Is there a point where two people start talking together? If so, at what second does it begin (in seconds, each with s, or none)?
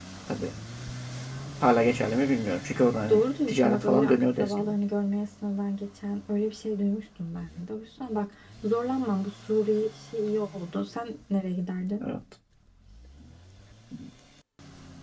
3.1 s